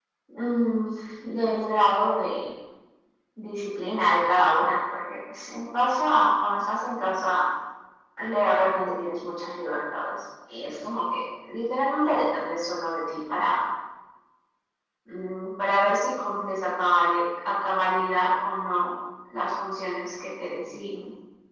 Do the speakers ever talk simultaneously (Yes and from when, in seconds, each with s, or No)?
No